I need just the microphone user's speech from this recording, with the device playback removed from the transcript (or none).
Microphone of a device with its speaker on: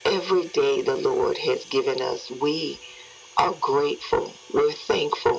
none